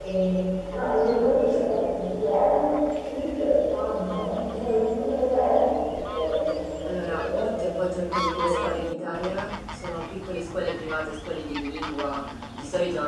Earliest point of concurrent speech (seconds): 6.8 s

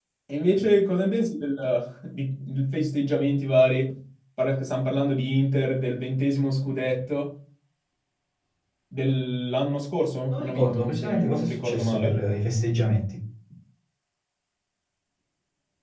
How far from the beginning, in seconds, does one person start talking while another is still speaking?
10.3 s

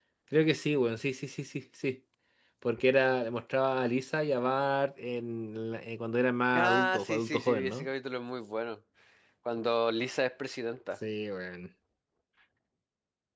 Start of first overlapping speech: 6.5 s

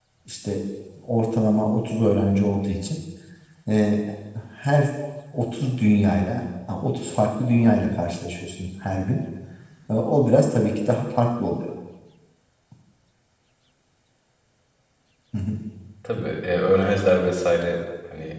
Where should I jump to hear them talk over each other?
none

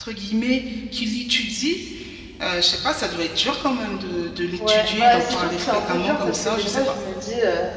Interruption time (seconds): 4.6 s

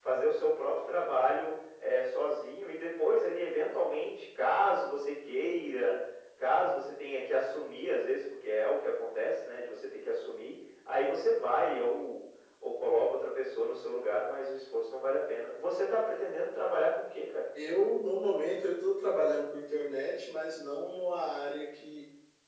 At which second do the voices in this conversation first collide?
none

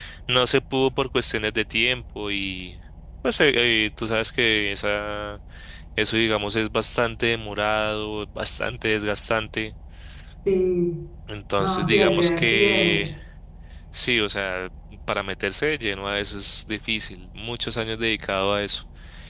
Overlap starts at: 11.6 s

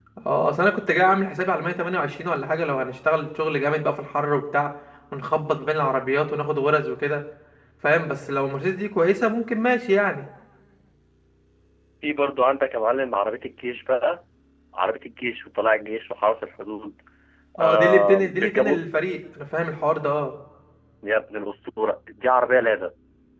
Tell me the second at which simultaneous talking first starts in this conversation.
17.6 s

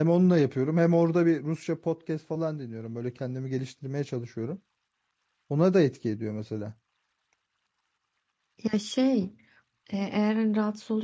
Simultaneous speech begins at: none

